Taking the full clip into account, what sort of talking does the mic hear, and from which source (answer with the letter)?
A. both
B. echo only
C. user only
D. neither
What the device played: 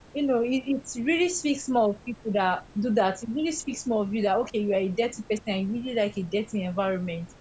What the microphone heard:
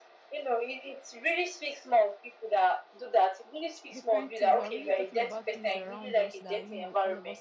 A